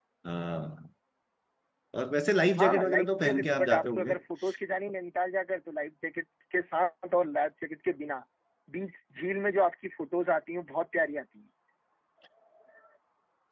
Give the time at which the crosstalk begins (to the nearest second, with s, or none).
3 s